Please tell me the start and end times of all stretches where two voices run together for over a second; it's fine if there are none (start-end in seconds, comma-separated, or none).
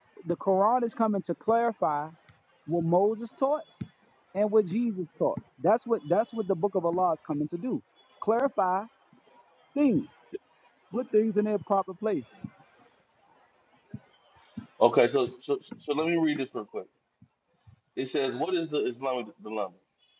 none